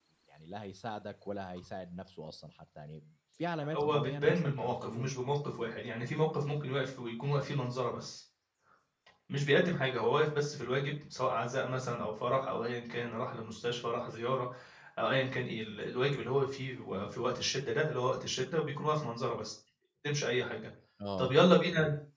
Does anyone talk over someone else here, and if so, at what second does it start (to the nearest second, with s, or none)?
4 s